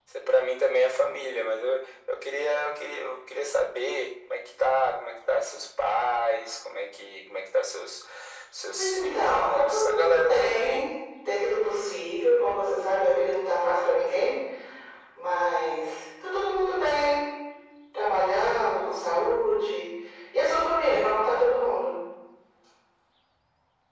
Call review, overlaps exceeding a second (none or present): present